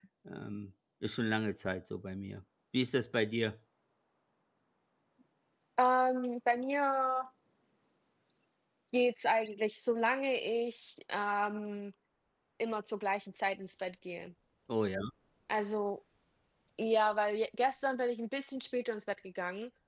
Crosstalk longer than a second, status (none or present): none